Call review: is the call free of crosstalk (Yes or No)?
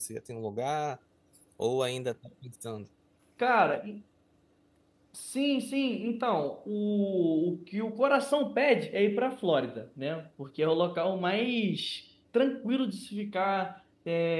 Yes